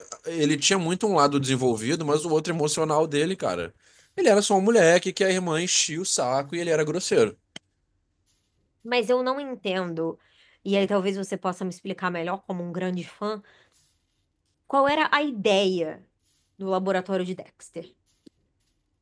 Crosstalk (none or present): none